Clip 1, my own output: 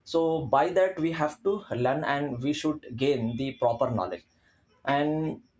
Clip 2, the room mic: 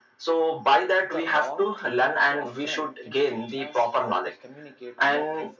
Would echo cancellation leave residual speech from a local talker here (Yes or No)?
Yes